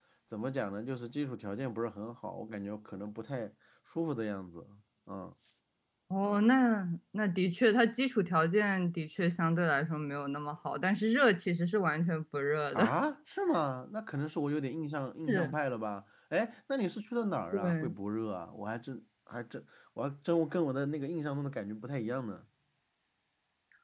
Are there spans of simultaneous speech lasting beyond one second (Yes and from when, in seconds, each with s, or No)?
No